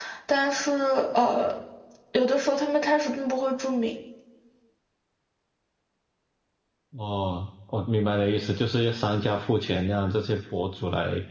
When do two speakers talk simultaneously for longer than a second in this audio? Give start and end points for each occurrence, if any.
none

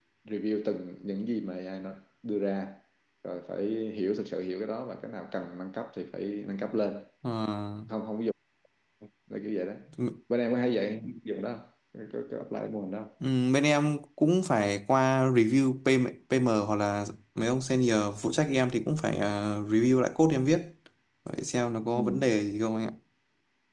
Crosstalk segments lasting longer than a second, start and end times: none

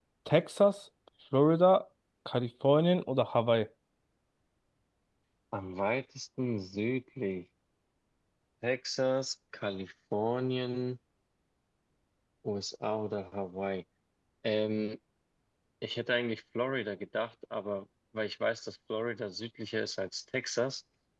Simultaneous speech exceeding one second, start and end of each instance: none

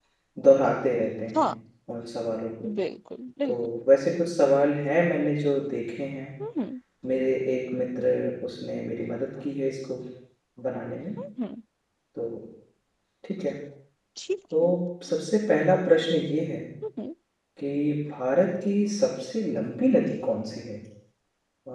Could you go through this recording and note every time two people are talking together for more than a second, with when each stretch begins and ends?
none

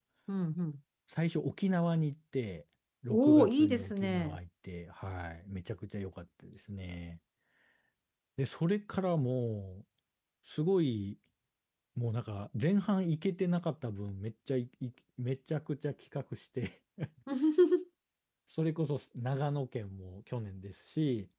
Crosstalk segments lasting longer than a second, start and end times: 3.1-4.4

